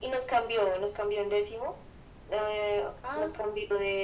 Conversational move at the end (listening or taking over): listening